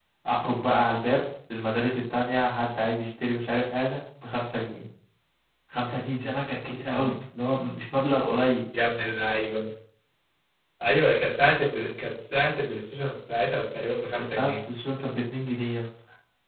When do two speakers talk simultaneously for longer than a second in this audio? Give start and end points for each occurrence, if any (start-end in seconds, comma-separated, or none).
none